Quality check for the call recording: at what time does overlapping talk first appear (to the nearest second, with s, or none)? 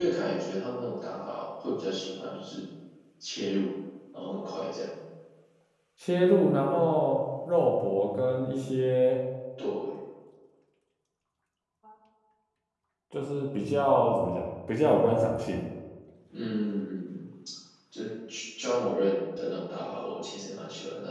none